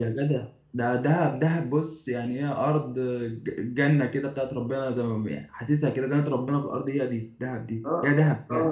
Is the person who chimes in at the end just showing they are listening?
No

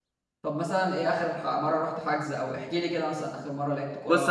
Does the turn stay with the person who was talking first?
No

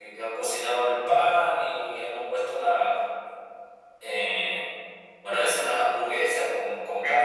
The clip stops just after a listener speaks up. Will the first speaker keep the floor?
No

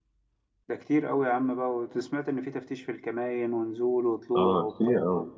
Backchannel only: No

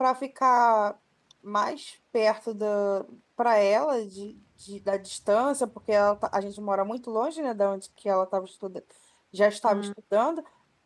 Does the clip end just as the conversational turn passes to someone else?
No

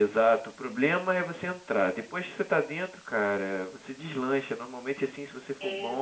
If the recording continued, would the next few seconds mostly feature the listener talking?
No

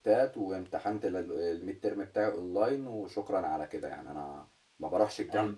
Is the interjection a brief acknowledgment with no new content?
No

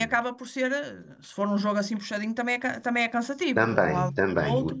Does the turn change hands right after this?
Yes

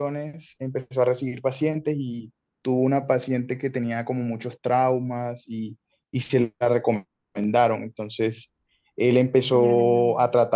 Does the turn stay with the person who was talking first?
Yes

